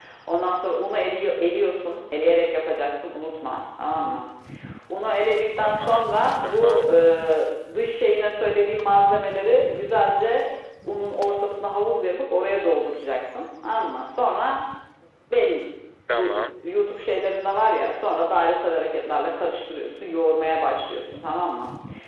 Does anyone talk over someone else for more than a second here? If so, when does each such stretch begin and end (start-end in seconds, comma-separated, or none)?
5.6-6.9